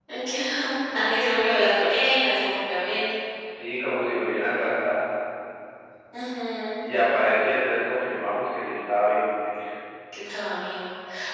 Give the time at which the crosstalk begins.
none

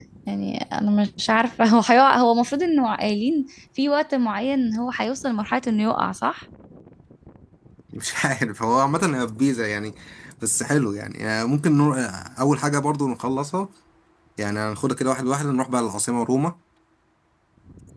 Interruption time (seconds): none

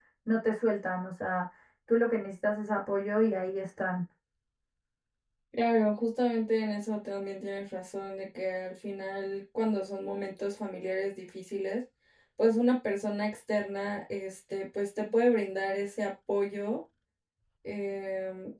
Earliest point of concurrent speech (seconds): none

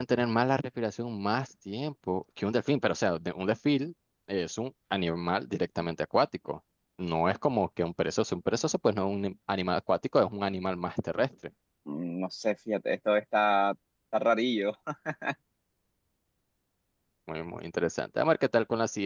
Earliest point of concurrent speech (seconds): none

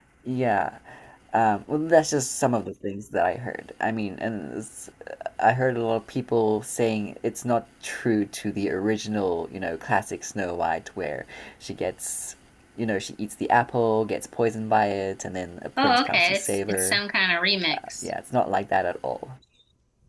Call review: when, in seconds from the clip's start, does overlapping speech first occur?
15.8 s

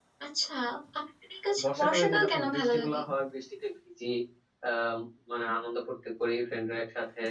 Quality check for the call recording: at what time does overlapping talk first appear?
1.6 s

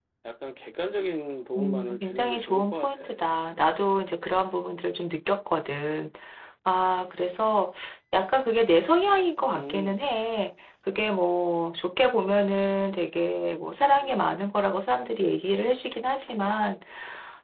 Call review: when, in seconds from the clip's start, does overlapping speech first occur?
1.6 s

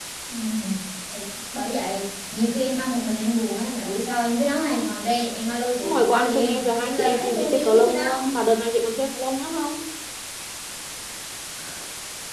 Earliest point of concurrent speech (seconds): 5.8 s

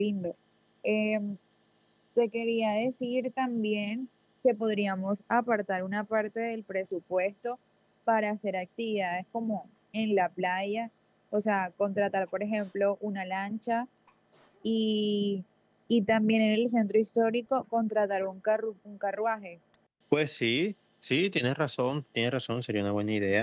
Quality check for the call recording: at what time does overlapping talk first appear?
none

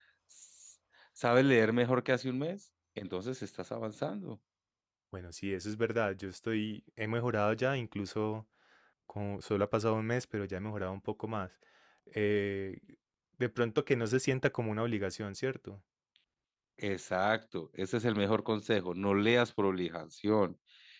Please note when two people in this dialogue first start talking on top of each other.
none

